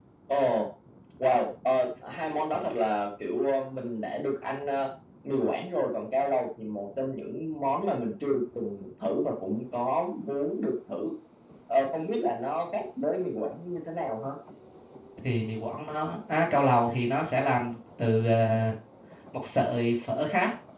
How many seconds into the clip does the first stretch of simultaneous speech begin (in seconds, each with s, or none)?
none